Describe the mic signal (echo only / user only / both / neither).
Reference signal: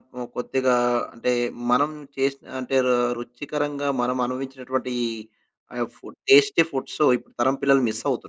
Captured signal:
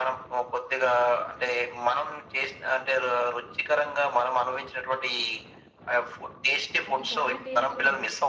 both